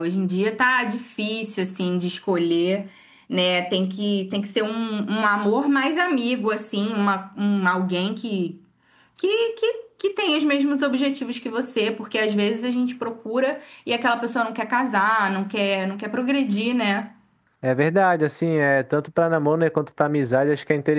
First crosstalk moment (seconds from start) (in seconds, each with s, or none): none